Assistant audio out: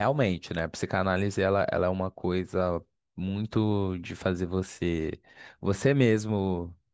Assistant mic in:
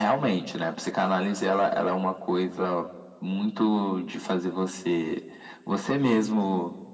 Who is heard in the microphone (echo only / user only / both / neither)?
echo only